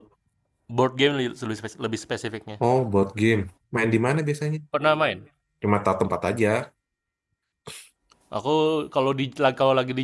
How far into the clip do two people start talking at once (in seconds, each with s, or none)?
none